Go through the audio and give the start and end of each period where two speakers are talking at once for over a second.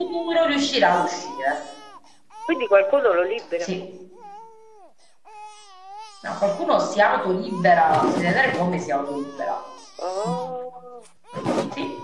none

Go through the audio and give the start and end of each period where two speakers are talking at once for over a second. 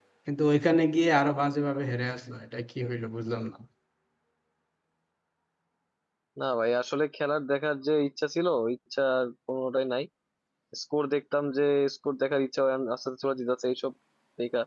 none

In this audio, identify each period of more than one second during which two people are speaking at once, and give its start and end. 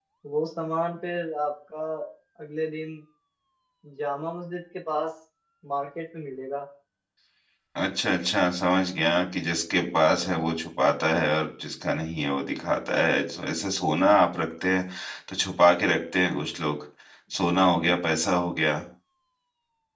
none

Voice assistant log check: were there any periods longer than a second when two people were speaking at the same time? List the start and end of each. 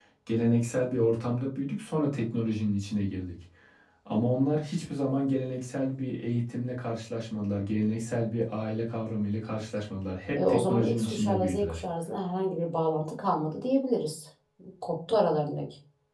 10.3-11.8

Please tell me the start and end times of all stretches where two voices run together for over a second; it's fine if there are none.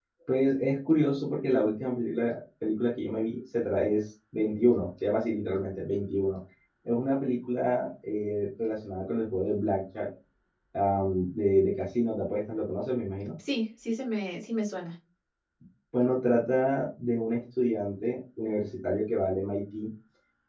none

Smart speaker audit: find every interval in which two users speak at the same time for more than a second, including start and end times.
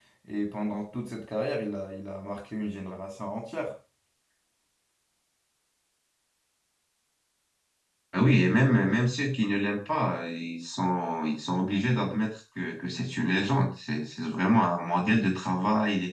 none

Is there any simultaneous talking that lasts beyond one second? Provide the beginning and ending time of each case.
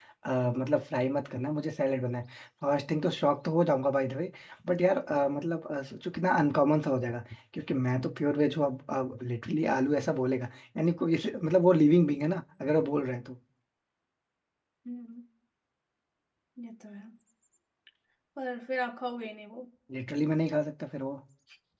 none

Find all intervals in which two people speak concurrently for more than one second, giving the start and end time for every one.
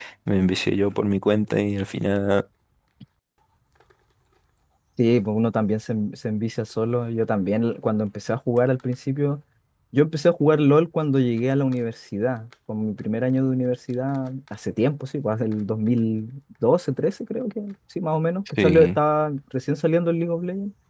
none

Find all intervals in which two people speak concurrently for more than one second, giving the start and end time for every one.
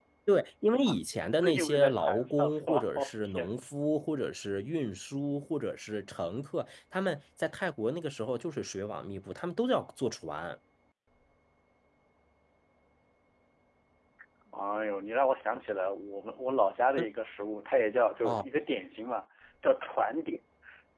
1.4-3.6

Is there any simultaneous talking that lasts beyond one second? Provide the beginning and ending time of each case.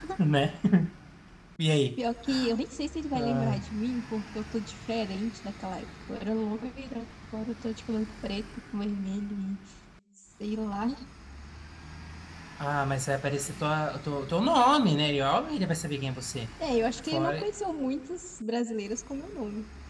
none

